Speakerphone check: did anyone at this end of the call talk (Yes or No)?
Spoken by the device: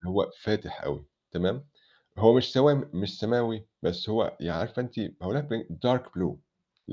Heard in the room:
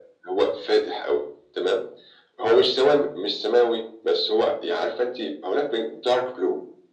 No